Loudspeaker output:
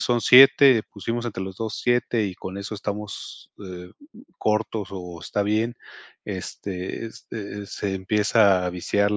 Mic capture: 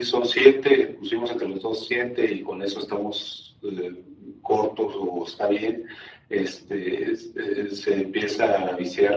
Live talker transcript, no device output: none

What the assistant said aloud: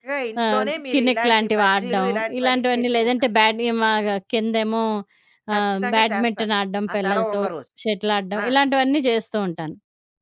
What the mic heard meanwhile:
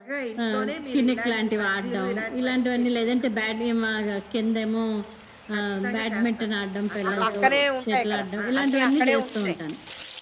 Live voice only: ఆ పక్కనే ఉంటాయి కదా! అన్నీ అక్కడే ఉంటున్నాయి.

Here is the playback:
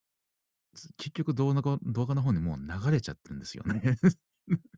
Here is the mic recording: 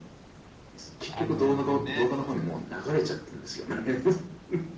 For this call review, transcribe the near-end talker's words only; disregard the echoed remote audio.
あの、ね、

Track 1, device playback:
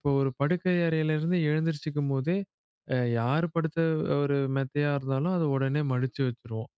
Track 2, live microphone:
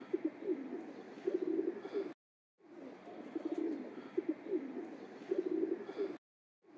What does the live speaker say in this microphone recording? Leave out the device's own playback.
none

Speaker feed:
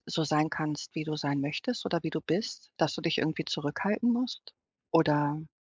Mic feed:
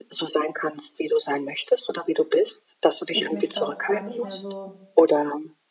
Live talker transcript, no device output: ich mich da auch gar nicht mehr so

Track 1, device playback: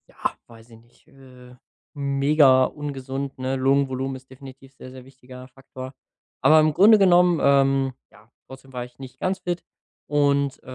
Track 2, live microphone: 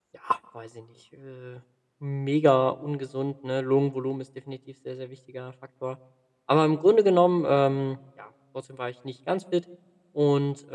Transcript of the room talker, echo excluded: none

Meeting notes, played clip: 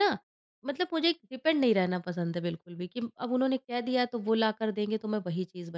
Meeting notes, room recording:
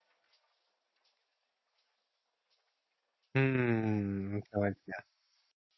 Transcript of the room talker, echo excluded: हम्म, समझ गया।

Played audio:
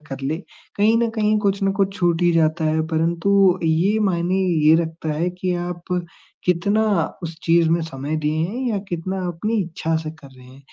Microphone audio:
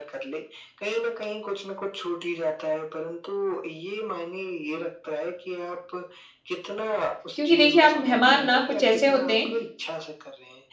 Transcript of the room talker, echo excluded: क्योंकि देखिए आप मेहमान ना कुछ ऐसे होते हैं

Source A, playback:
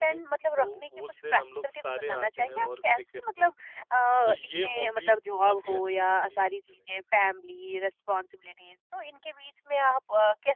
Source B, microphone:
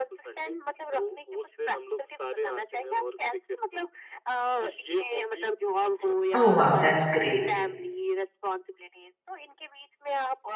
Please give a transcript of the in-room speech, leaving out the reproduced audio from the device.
ओह वाओ! दैट्स ग्रेट।

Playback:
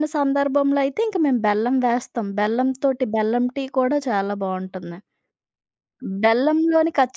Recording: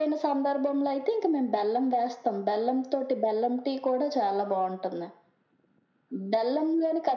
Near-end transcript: none

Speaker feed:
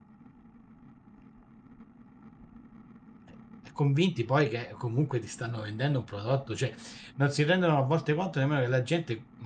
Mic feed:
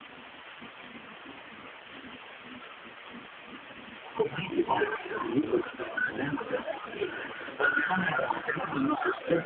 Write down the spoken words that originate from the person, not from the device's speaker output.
none

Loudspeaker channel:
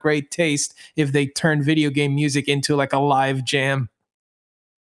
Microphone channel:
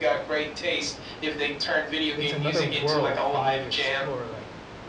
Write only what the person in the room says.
it's another world for me to explore like

